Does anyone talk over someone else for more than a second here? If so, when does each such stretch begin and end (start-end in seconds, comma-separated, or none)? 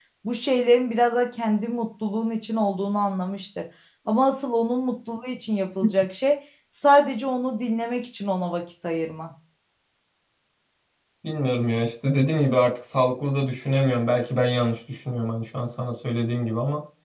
none